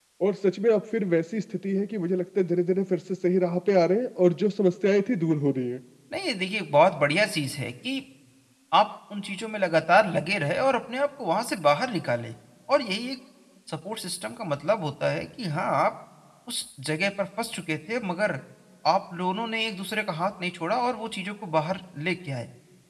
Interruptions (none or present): none